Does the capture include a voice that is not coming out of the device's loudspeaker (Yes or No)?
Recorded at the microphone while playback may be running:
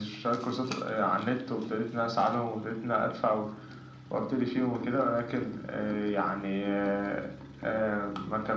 No